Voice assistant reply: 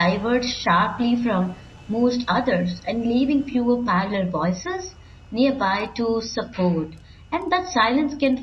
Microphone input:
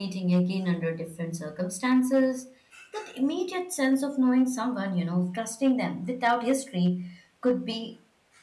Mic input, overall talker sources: user only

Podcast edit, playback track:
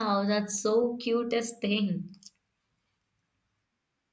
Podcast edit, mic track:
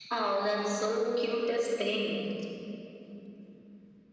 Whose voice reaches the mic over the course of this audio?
echo only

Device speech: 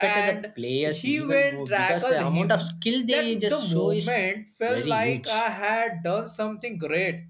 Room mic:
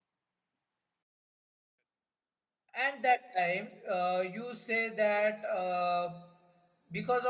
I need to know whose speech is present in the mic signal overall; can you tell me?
user only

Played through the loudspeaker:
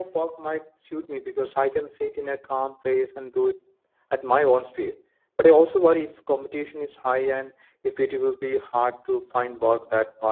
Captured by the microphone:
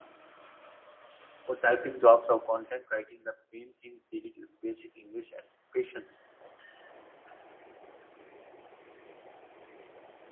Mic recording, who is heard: user only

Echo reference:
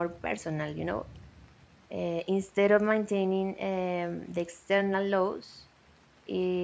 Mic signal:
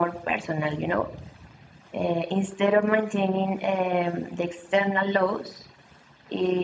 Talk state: echo only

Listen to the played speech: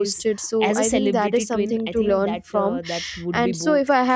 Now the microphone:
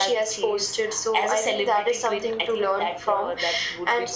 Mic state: echo only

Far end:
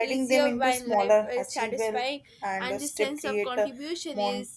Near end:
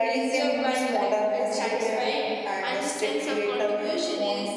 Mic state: echo only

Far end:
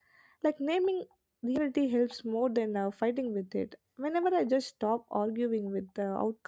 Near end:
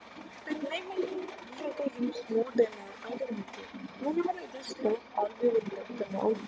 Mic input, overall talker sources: echo only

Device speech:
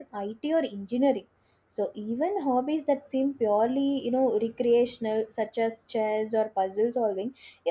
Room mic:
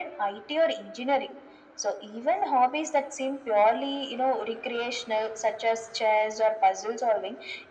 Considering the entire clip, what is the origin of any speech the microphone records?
echo only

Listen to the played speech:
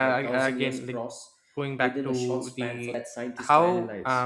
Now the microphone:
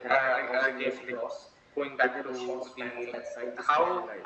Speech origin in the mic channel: echo only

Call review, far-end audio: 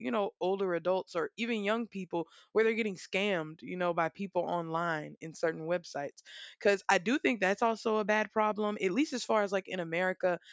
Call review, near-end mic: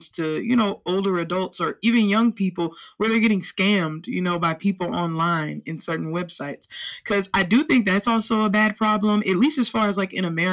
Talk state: echo only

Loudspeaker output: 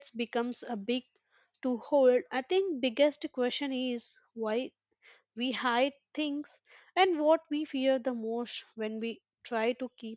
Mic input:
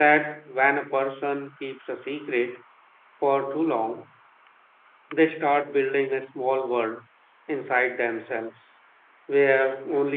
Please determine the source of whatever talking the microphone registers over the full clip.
user only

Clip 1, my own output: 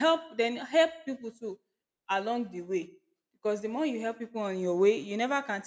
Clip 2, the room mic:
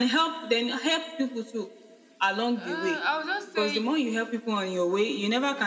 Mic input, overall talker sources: both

